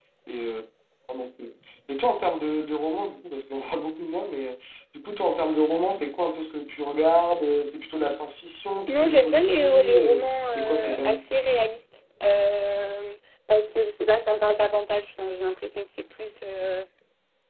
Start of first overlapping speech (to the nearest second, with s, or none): 9 s